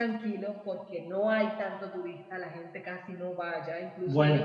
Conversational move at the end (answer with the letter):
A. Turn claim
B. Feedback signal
B